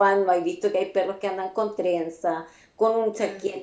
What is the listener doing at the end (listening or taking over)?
listening